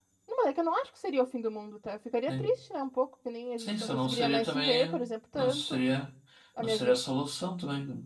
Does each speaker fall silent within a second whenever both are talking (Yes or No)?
No